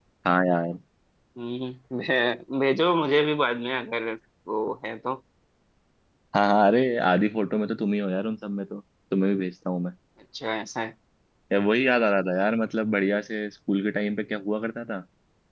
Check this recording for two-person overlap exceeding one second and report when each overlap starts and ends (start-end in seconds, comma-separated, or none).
none